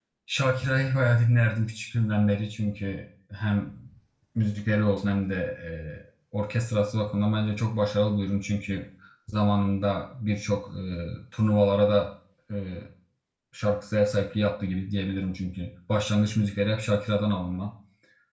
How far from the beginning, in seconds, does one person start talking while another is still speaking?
none

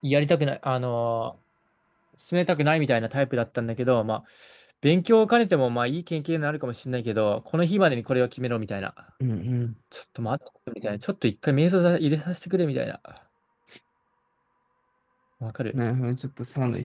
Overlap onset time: none

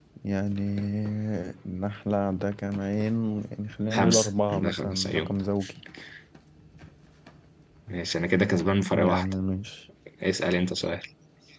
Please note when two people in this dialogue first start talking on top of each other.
3.9 s

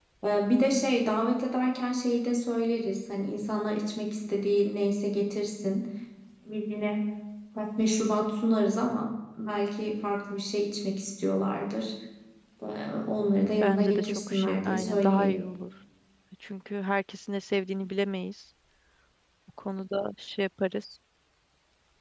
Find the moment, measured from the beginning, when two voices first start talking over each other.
13.6 s

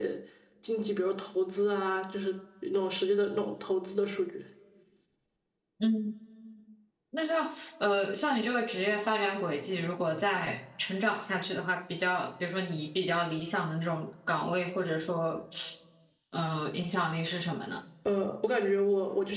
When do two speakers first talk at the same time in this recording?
none

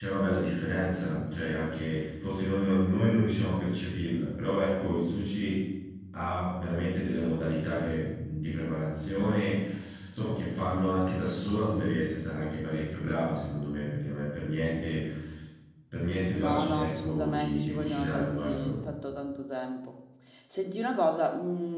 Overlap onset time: 16.3 s

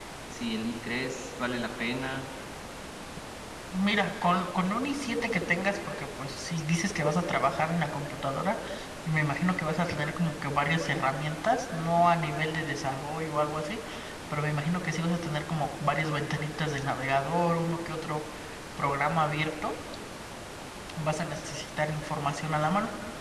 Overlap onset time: none

